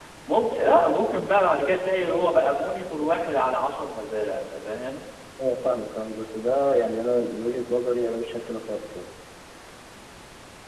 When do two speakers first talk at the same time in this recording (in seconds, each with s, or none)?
none